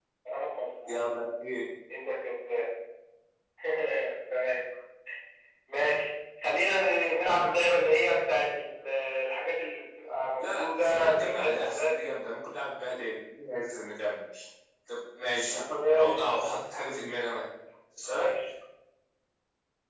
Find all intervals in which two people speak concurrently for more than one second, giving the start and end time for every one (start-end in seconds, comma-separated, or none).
10.4-12.1